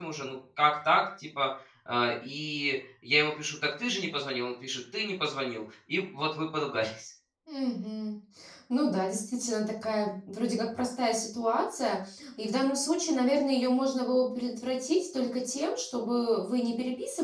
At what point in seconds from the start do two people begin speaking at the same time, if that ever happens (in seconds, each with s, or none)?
none